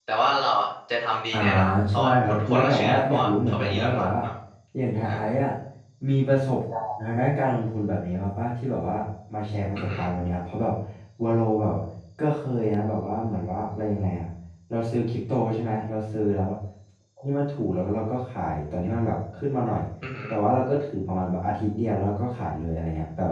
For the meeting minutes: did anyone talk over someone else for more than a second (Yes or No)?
Yes